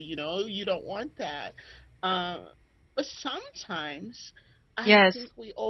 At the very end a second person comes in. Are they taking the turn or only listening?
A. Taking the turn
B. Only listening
B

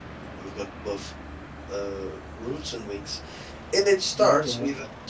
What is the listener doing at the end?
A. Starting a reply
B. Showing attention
B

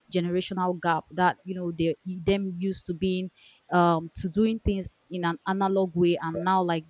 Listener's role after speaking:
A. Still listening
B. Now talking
A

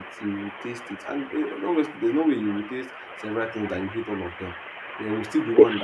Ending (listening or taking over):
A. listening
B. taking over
A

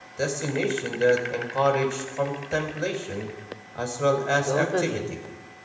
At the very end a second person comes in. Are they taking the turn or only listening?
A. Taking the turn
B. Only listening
A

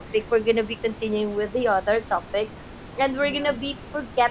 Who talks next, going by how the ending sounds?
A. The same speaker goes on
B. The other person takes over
A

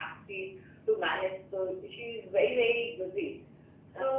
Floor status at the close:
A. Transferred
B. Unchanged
B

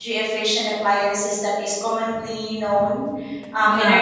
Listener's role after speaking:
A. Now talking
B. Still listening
B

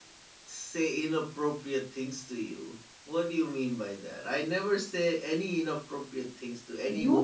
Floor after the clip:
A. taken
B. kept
A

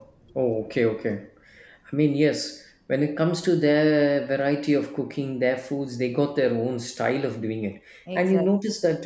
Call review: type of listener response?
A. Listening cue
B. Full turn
A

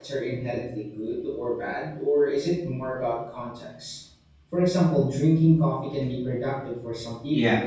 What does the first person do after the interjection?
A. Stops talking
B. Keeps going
A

